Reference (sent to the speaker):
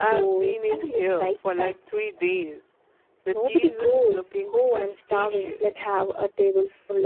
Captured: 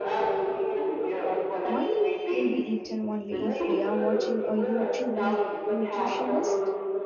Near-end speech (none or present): present